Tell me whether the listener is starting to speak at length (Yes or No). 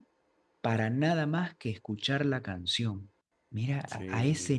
No